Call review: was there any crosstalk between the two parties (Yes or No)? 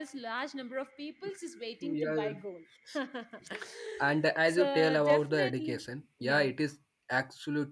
Yes